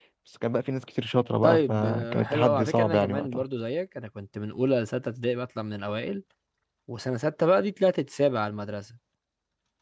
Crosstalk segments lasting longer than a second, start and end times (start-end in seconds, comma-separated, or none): 1.4-3.4